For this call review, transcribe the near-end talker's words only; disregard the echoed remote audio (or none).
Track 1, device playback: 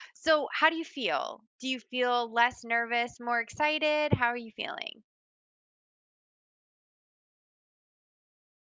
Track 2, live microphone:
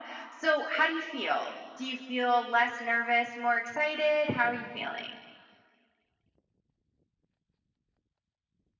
none